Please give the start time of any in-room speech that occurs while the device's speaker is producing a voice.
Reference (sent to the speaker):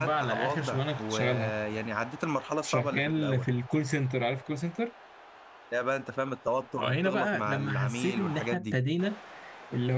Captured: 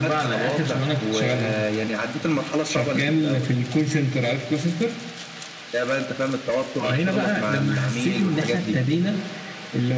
none

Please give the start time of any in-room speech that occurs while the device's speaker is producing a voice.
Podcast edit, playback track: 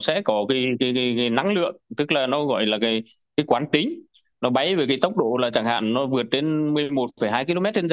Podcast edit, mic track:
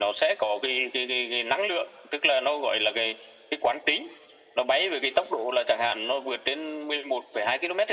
none

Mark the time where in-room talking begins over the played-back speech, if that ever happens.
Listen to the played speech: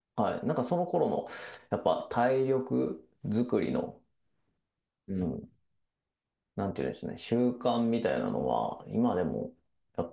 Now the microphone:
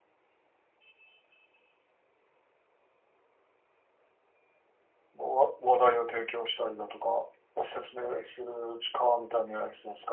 5.2 s

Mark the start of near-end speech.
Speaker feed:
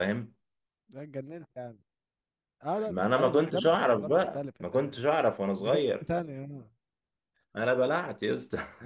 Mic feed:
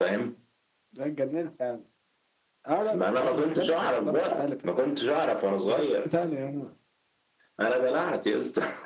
none

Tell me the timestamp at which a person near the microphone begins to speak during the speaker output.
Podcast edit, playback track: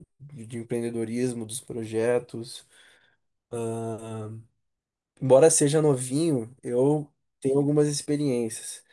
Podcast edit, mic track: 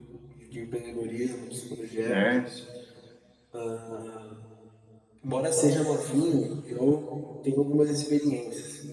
2.1 s

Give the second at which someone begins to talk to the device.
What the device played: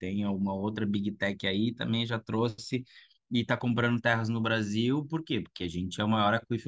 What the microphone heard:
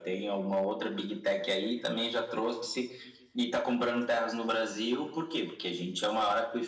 none

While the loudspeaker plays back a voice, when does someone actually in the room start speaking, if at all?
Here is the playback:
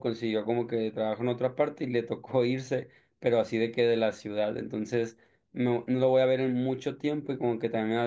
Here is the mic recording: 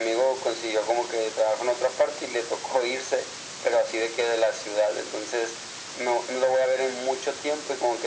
none

